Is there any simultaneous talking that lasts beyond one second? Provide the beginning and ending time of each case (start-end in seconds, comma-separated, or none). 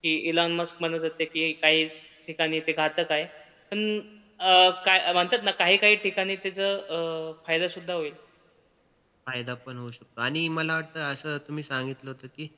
none